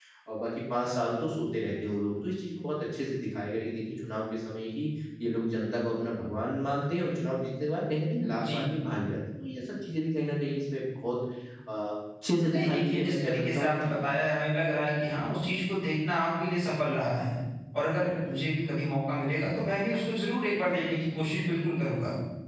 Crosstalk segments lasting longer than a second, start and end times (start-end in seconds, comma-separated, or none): 12.5-13.9